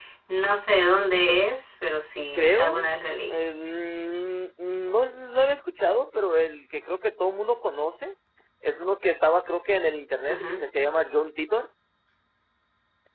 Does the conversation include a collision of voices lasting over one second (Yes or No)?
No